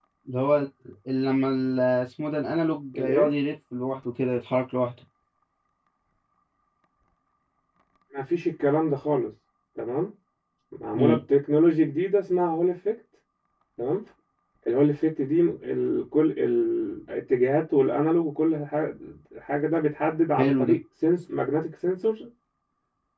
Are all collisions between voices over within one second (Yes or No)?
Yes